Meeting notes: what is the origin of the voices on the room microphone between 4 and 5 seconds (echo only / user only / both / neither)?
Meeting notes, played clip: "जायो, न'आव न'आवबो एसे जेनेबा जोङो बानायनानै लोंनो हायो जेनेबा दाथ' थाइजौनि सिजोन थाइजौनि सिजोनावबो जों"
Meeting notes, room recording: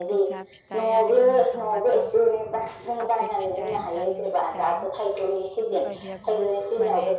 both